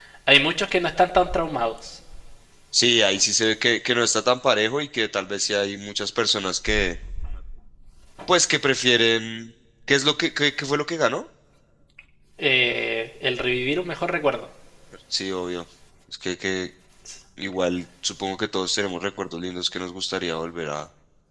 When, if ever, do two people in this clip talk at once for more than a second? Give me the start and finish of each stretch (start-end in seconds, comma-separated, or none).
none